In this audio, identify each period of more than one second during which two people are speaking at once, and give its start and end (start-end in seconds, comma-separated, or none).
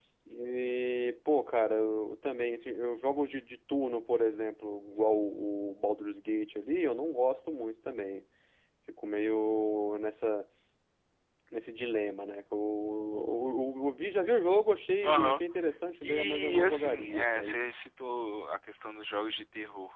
16.0-17.6